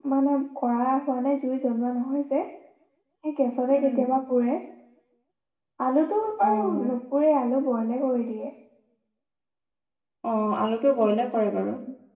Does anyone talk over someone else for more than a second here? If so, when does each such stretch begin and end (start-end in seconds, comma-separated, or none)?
none